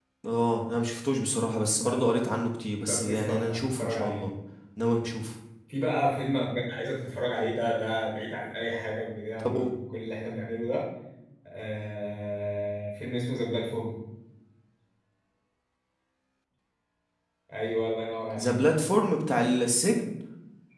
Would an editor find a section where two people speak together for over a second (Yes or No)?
Yes